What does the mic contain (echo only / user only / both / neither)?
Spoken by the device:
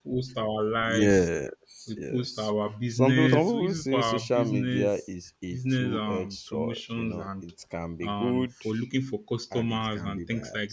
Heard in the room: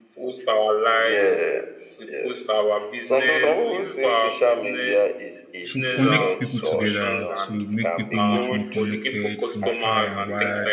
both